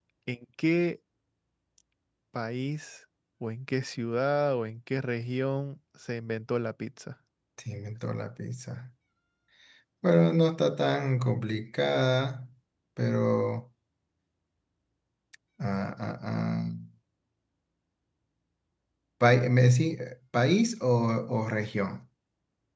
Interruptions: none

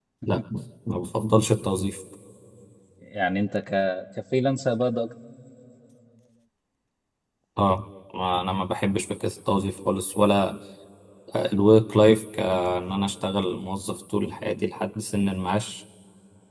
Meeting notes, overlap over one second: none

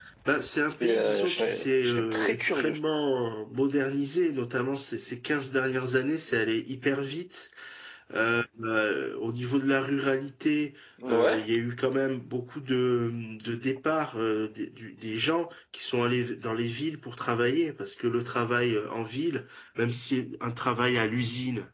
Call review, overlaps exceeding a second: present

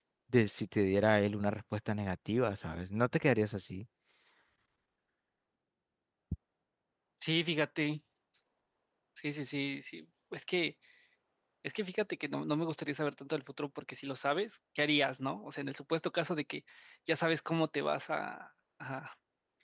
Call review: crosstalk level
none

